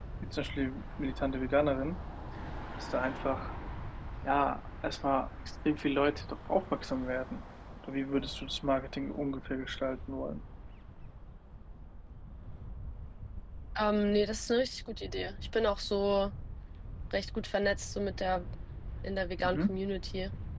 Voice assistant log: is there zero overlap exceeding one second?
Yes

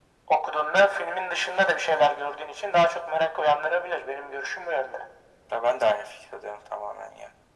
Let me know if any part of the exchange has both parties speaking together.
No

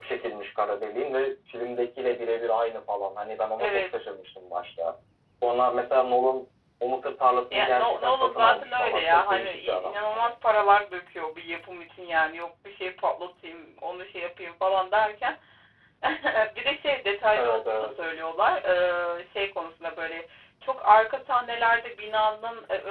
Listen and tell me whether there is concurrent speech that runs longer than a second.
Yes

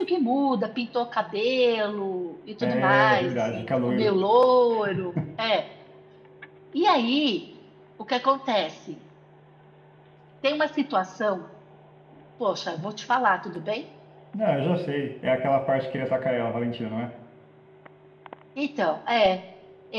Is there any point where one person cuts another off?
Yes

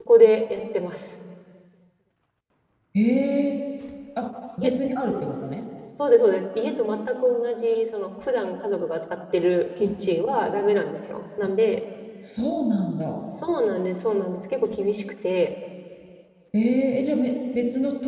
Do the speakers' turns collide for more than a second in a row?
No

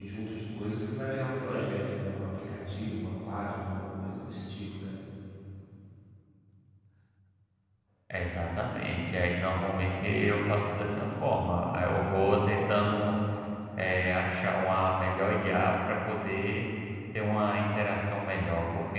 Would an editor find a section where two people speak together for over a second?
No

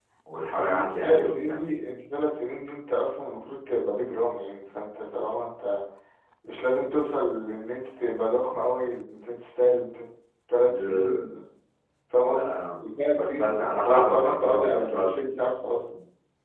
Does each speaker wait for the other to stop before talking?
No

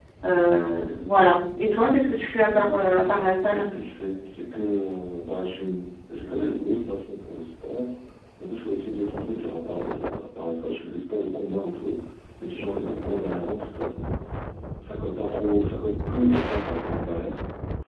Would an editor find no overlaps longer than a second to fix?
No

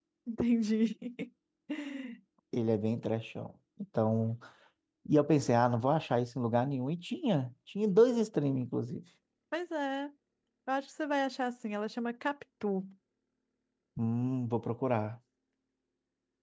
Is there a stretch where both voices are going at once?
No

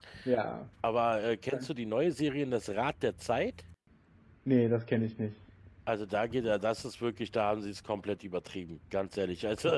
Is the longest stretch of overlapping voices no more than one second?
Yes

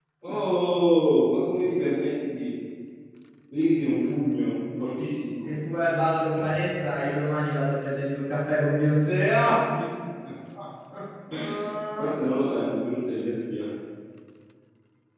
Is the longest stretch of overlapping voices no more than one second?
Yes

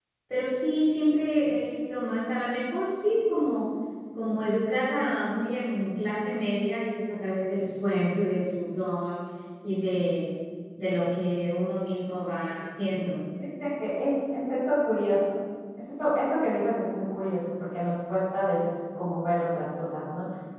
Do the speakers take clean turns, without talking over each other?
Yes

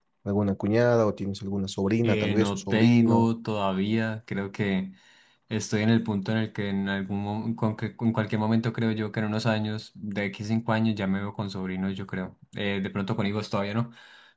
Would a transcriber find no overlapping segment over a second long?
No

